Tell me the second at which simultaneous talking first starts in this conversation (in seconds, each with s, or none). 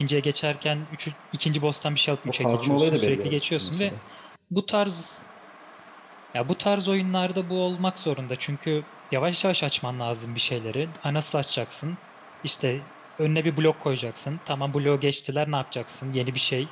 2.3 s